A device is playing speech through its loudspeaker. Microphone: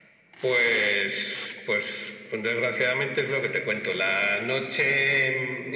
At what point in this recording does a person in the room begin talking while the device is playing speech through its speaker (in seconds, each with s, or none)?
none